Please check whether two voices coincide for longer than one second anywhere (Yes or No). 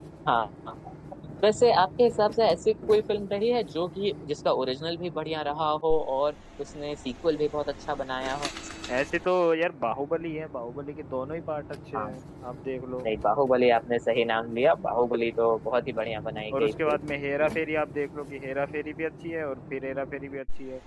No